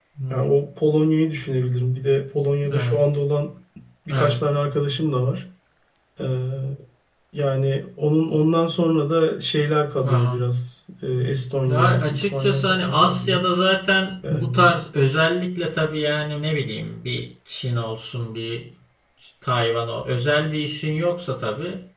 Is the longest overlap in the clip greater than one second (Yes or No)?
Yes